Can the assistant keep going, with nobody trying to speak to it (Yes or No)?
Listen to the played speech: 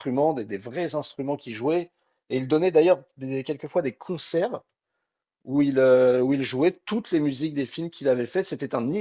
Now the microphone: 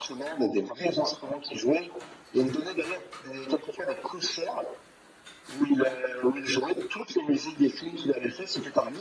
Yes